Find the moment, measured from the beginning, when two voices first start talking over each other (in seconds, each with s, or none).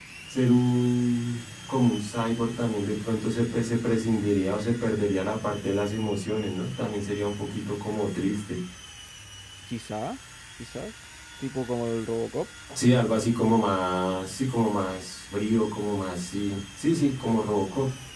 none